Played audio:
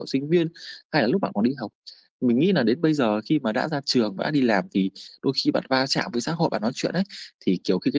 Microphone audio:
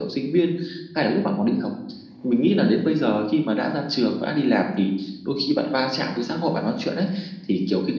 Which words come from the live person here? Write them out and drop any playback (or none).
none